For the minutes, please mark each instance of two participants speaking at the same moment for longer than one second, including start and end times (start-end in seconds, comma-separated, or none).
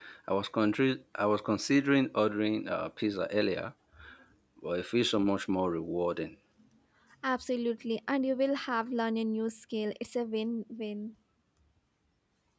none